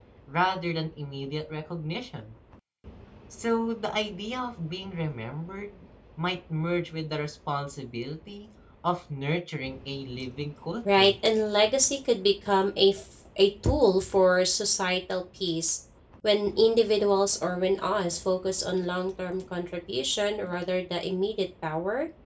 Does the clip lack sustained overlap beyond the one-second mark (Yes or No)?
Yes